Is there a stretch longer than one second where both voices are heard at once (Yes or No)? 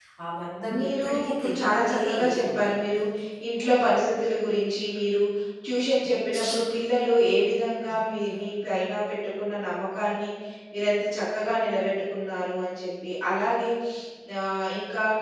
Yes